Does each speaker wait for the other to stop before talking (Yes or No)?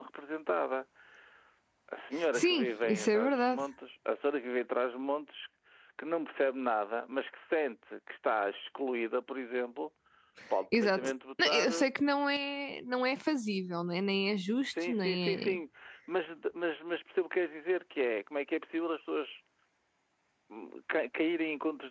No